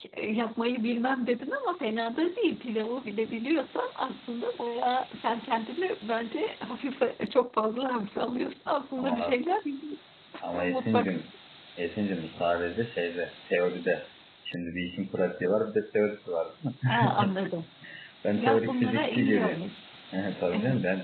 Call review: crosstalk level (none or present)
present